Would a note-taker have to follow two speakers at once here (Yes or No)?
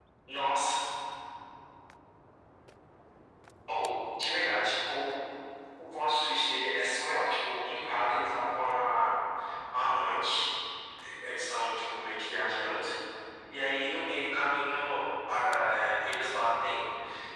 No